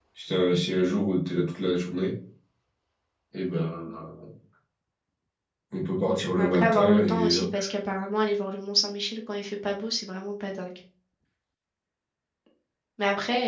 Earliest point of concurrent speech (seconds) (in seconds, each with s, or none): 6.1 s